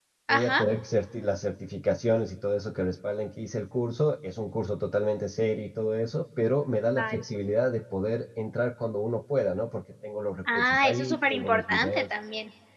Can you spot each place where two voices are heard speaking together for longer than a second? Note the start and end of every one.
10.5-12.0

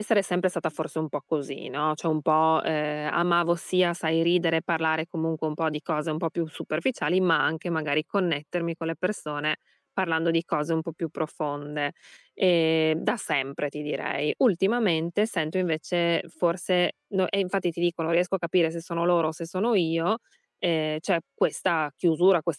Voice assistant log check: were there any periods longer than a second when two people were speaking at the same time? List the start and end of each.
none

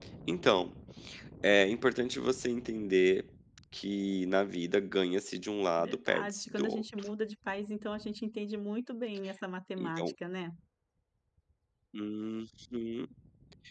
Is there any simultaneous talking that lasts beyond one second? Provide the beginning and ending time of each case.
5.8-7.1

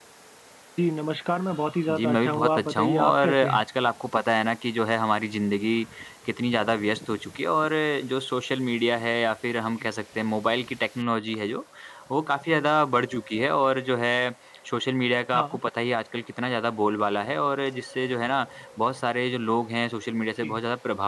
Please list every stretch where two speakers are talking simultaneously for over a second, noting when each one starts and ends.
1.9-3.6

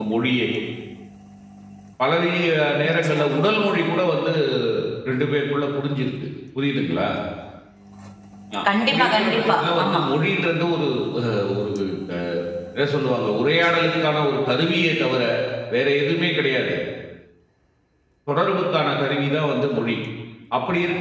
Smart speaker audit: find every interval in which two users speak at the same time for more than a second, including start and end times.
8.8-10.0

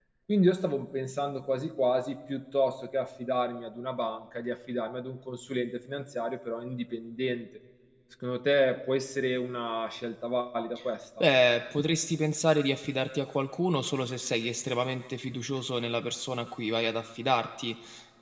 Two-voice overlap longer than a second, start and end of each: none

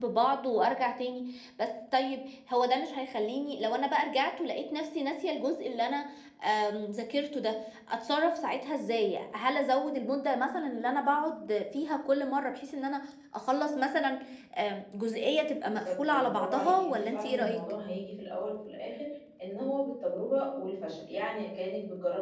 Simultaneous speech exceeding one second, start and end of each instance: 15.7-17.6

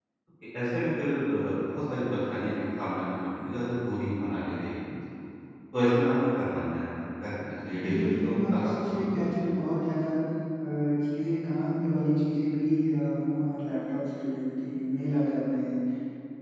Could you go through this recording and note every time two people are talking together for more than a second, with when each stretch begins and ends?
7.7-9.3

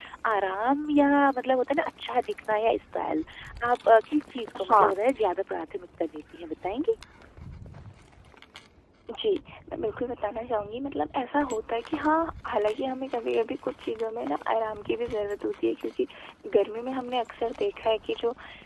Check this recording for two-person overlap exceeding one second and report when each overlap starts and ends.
none

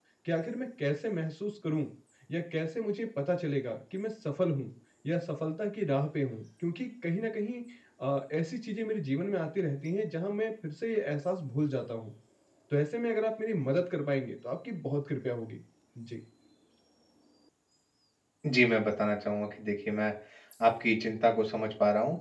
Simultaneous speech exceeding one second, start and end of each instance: none

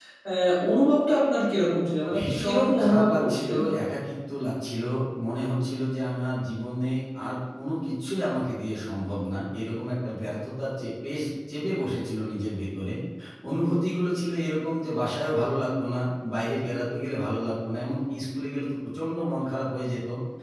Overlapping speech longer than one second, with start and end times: 2.1-3.9

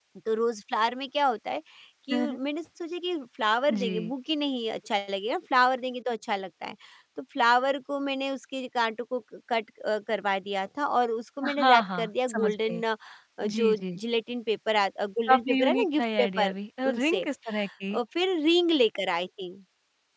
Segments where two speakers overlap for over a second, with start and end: 11.6-12.8, 15.3-16.5

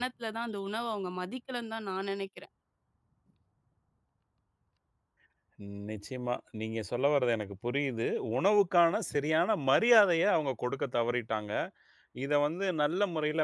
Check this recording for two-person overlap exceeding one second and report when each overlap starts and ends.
none

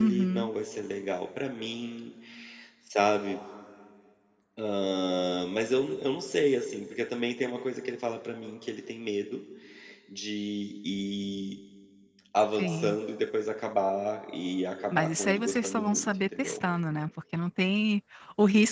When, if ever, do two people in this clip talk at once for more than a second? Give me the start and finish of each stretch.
14.9-16.6

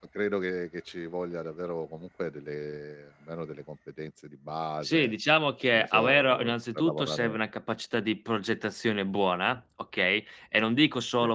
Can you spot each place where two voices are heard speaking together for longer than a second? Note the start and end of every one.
5.7-7.4

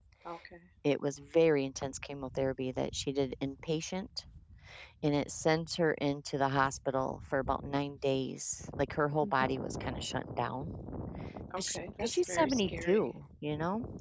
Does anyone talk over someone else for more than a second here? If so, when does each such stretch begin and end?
11.6-13.1

